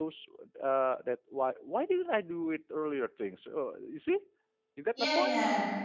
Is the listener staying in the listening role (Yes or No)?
No